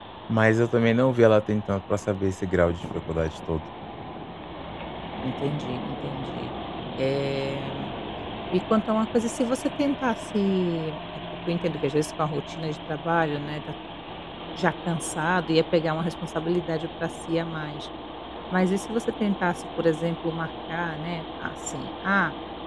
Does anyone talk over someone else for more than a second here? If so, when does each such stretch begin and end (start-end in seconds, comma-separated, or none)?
none